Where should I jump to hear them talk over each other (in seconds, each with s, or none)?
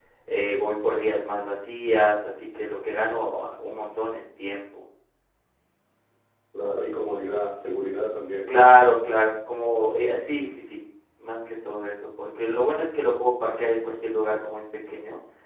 none